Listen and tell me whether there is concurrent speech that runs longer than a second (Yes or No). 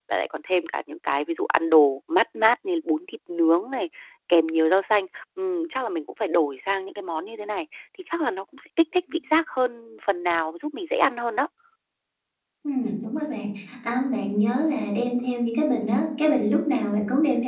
No